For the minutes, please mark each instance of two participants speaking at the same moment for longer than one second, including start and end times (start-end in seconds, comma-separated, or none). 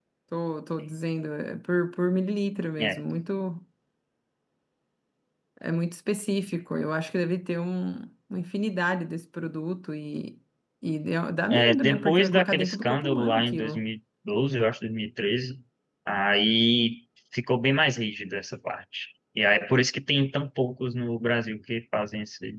11.5-13.8